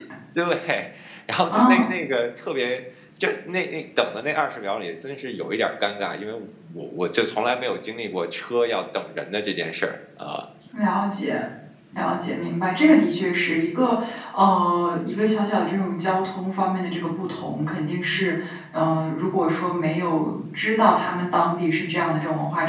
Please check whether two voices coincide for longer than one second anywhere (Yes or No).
No